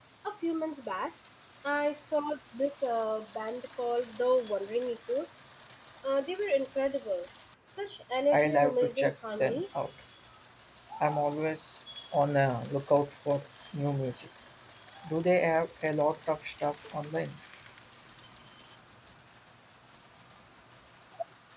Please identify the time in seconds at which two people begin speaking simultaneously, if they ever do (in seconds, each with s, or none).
8.3 s